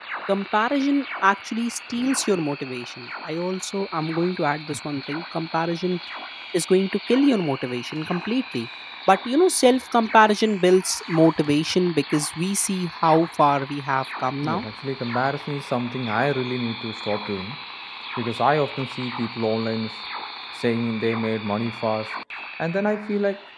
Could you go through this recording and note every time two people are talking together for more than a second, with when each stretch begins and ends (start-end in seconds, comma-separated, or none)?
none